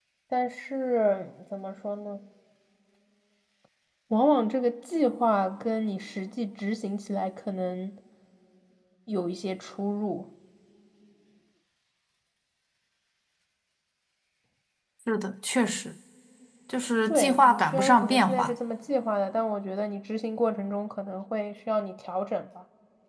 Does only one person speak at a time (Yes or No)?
No